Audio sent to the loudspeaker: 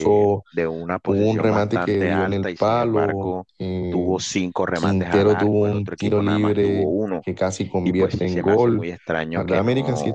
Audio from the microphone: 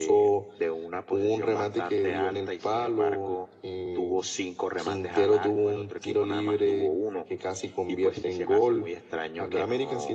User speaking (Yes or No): No